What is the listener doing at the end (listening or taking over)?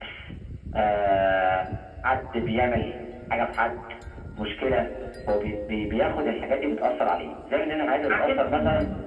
listening